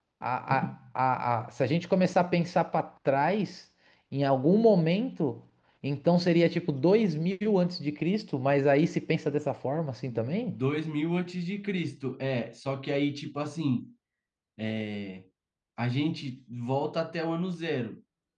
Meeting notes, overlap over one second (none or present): none